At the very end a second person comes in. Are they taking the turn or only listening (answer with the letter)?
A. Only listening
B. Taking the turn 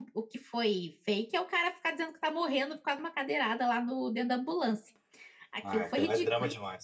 B